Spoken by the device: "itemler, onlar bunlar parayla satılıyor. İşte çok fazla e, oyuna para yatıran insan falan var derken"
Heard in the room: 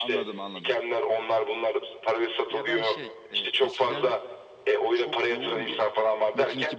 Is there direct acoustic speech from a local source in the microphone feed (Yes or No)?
Yes